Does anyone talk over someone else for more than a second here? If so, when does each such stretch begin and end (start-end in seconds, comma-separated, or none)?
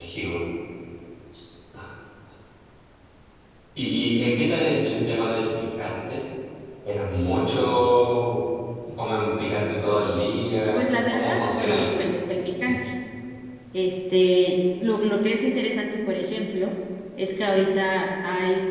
10.8-12.0